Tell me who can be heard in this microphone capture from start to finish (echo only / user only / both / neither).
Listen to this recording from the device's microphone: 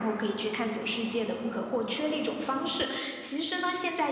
echo only